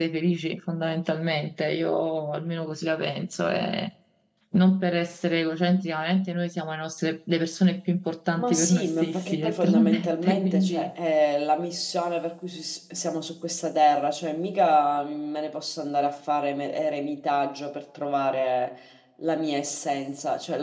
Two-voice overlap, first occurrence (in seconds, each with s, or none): 8.4 s